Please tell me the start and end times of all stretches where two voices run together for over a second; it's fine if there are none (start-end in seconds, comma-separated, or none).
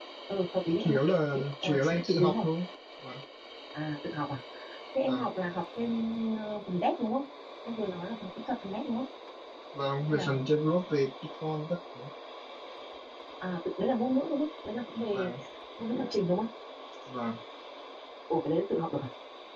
0.7-2.5